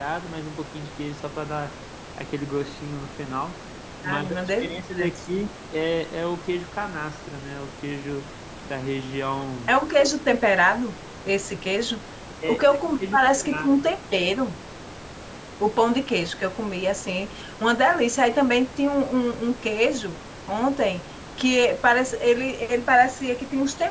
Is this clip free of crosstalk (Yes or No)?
No